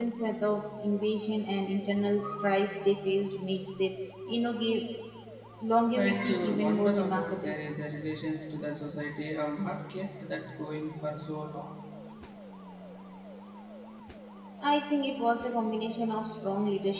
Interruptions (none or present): present